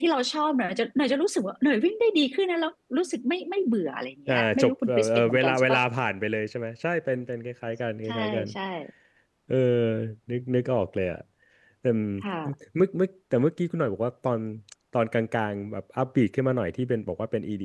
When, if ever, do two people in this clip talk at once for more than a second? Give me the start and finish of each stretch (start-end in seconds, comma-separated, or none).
4.3-5.8